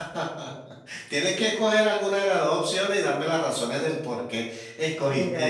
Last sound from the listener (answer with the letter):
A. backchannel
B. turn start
B